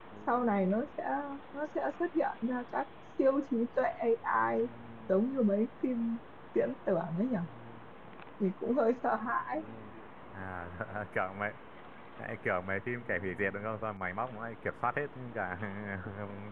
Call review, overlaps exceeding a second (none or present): none